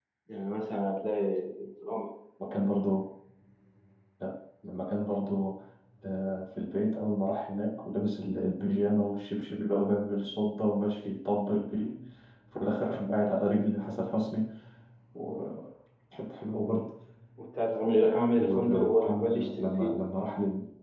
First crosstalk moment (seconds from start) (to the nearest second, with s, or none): 18 s